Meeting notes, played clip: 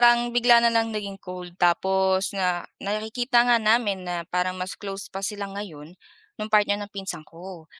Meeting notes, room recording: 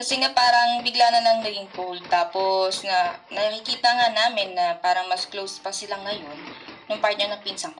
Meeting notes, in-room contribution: none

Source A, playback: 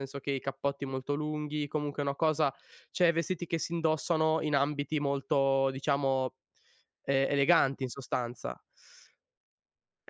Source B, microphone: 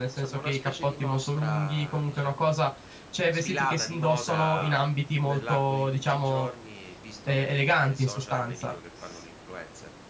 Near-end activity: present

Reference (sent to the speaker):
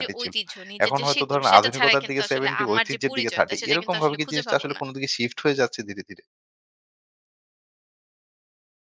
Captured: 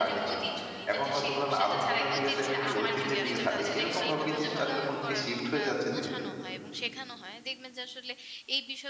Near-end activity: present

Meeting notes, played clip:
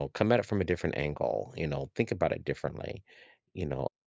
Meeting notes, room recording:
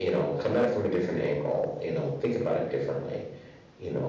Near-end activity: none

